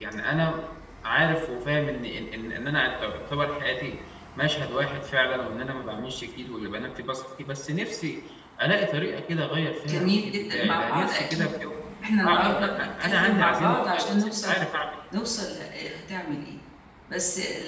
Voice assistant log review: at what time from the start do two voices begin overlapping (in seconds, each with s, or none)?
9.9 s